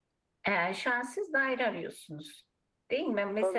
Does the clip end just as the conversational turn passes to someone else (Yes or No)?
Yes